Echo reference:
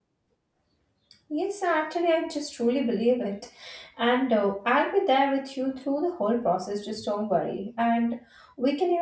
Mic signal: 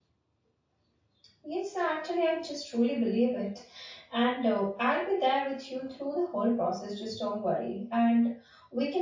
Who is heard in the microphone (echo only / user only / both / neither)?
echo only